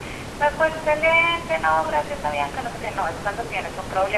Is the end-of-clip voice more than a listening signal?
No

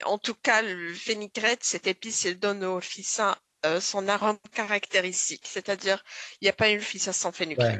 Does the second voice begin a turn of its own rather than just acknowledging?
Yes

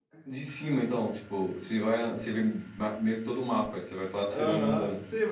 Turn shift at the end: Yes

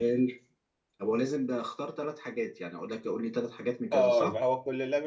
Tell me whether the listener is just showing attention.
No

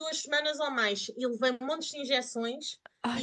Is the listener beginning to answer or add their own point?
No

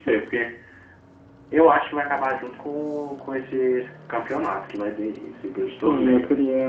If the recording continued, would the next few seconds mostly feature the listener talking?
Yes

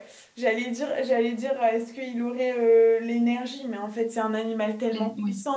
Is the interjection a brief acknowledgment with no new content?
Yes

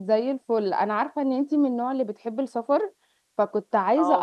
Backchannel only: Yes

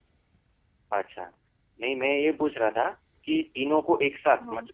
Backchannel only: Yes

